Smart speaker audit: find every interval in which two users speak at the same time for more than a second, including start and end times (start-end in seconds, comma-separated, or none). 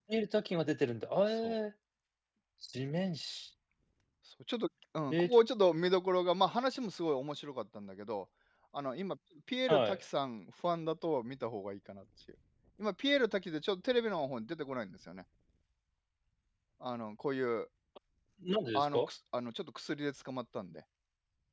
none